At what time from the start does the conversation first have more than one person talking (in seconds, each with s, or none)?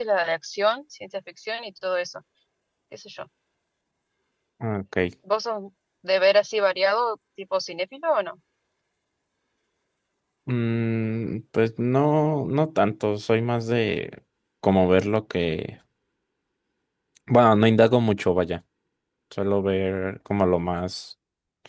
none